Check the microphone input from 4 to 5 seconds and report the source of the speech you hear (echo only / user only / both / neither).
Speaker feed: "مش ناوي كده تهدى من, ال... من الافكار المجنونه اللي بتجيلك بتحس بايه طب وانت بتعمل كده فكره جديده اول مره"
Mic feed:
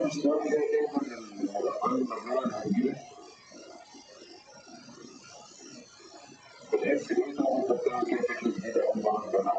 neither